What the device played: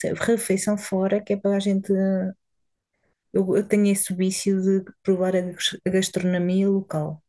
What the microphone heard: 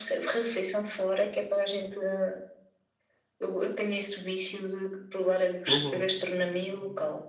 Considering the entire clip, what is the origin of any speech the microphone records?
both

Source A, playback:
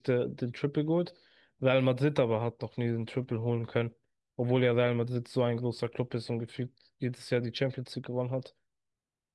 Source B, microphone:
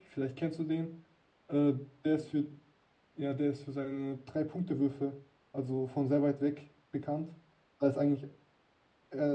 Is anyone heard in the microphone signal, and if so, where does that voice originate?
user only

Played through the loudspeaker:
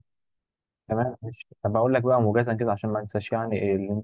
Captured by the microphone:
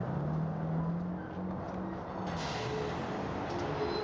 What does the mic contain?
neither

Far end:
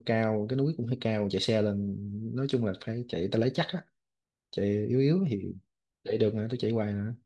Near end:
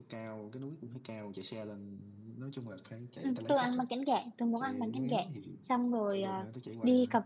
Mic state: both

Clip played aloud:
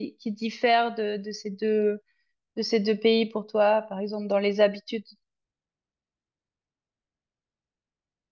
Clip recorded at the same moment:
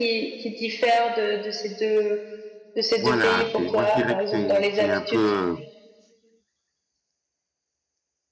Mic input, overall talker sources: both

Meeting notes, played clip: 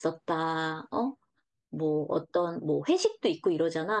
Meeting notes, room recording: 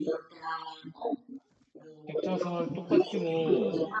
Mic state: both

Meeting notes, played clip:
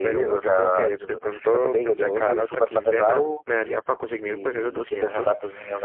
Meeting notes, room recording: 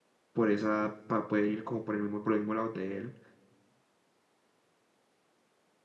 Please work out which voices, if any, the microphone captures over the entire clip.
user only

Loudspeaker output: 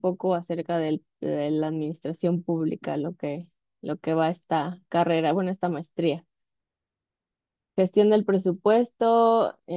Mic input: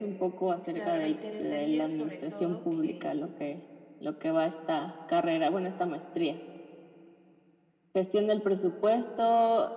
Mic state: both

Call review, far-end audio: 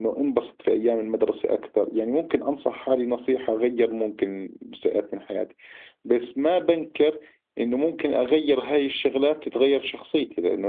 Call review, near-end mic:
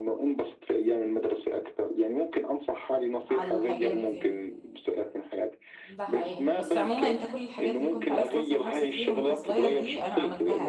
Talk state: both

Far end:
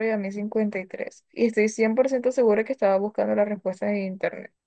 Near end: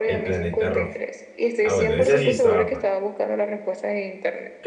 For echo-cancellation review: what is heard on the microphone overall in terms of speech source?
both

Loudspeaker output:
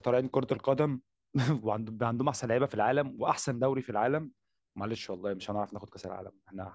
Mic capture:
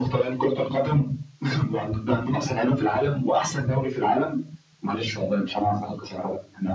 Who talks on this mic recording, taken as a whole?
echo only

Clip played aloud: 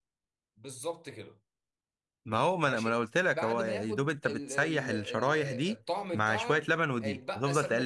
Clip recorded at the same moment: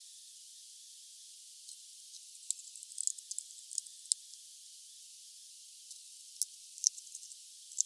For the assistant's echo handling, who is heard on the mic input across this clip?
neither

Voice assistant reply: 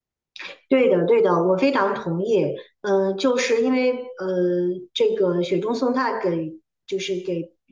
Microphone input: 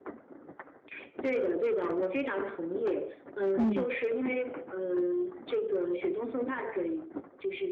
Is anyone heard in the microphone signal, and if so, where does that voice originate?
both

